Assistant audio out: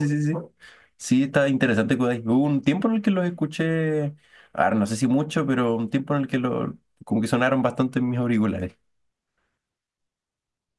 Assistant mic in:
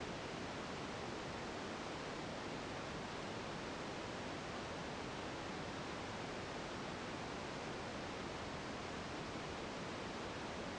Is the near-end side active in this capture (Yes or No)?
No